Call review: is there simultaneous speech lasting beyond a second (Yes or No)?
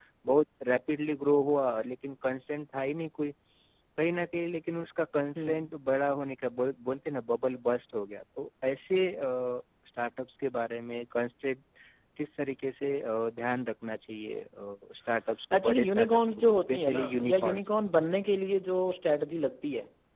Yes